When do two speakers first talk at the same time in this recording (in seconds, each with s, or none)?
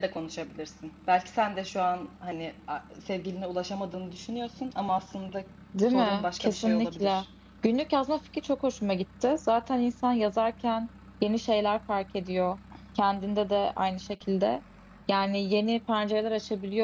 5.7 s